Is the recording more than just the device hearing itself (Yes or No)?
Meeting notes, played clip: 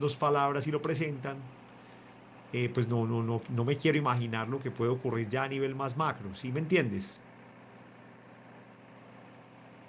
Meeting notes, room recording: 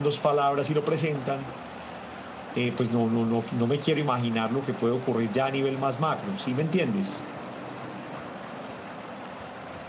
No